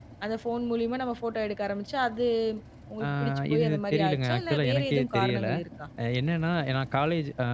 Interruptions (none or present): present